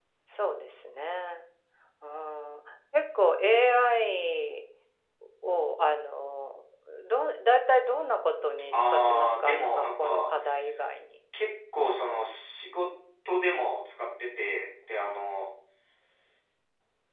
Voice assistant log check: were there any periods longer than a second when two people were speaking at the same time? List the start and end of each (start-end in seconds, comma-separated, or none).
8.7-10.3